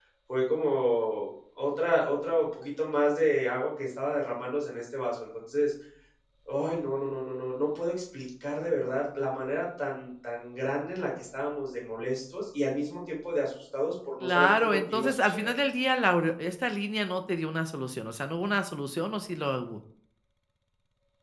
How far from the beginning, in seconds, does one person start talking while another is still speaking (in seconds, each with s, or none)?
14.2 s